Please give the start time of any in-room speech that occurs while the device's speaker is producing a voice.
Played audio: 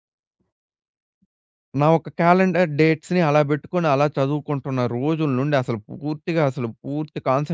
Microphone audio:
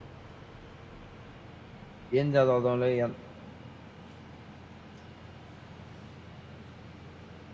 2.2 s

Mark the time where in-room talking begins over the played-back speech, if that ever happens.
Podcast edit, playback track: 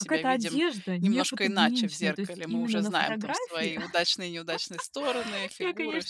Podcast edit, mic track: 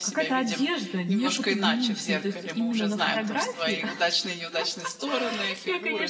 none

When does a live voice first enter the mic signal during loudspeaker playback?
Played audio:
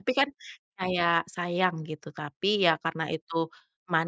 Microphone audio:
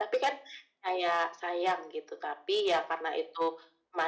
none

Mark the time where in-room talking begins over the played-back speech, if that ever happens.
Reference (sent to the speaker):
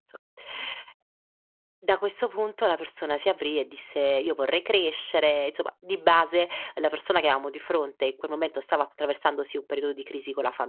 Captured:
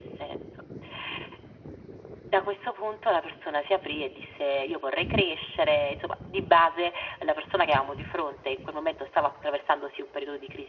none

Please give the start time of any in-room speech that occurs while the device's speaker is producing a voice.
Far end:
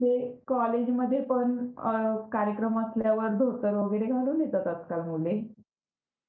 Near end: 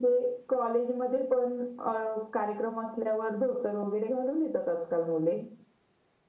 none

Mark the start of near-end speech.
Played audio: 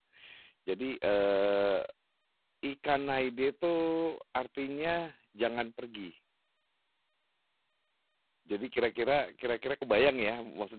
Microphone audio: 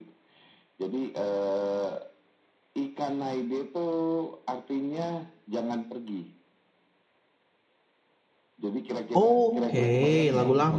9.1 s

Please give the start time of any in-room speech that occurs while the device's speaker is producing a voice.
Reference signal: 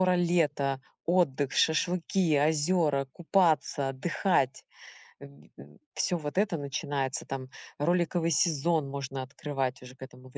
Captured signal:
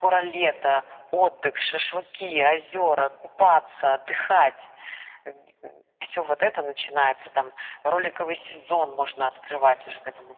none

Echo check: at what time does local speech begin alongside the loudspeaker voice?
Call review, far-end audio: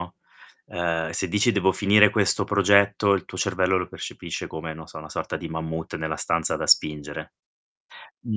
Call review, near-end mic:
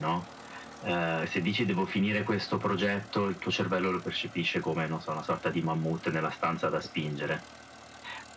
none

